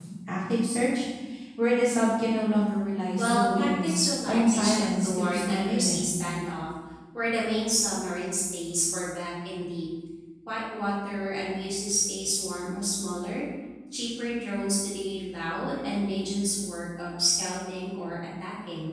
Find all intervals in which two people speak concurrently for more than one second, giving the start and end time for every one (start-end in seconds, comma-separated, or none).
3.2-6.1